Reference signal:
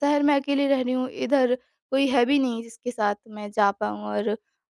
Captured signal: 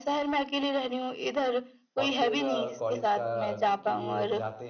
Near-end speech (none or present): present